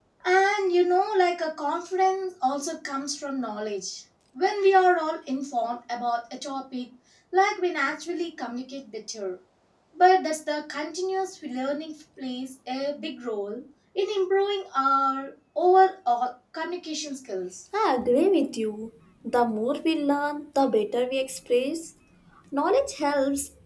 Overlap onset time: none

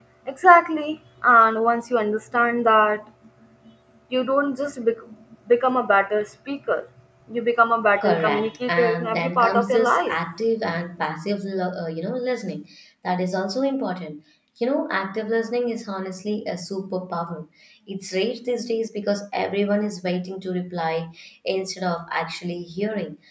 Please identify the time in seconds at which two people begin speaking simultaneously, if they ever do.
8.0 s

